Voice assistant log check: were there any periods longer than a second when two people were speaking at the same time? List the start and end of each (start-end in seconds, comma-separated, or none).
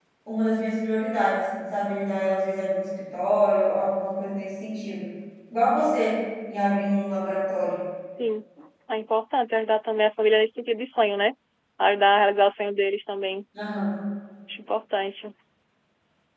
none